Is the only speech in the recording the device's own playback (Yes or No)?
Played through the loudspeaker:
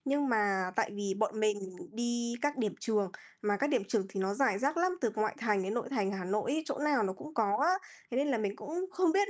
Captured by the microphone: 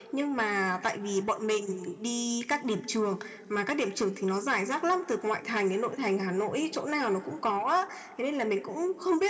Yes